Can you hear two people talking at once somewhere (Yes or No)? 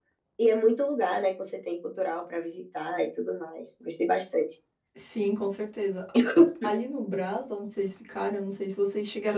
No